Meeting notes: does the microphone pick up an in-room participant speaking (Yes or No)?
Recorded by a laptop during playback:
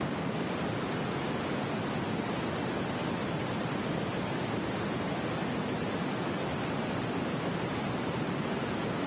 No